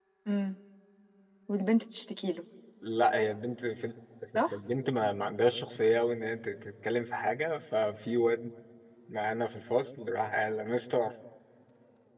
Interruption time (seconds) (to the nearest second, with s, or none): none